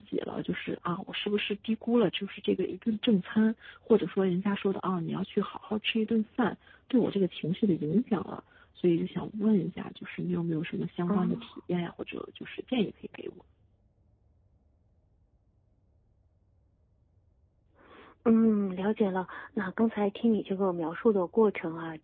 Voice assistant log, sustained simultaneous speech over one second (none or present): none